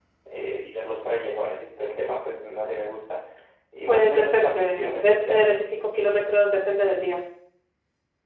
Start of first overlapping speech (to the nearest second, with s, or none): 4 s